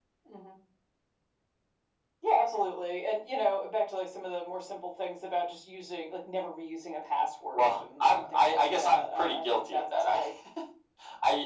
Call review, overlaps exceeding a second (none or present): present